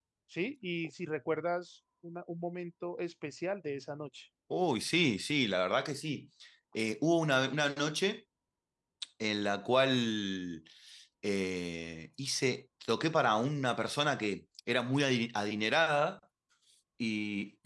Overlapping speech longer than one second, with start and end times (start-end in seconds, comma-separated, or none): none